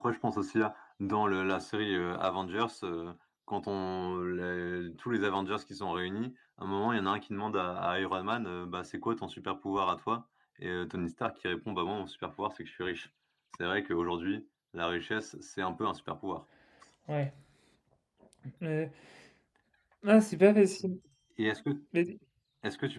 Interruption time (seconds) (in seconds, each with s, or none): none